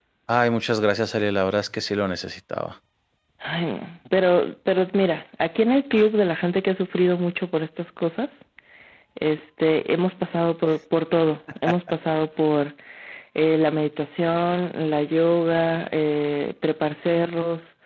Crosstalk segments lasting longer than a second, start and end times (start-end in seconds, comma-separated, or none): none